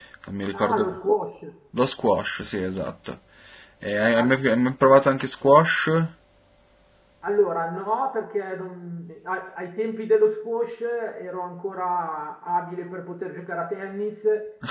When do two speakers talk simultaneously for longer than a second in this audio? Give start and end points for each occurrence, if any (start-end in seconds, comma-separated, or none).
none